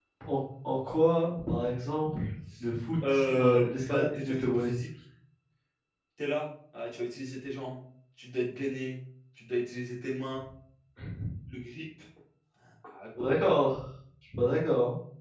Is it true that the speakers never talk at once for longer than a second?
No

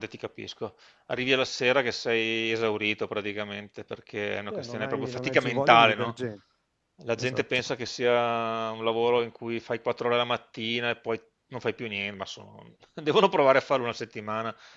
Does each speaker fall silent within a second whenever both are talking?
No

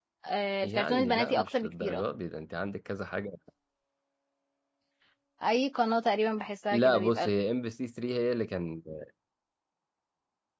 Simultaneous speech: Yes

